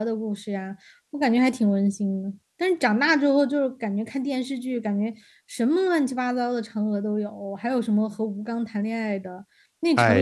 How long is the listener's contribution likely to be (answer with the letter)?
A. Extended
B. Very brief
B